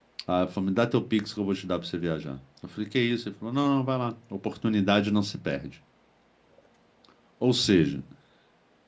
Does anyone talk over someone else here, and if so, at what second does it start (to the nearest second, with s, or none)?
none